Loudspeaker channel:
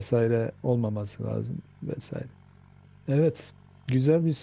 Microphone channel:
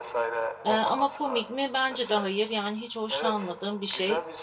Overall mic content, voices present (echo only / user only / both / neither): both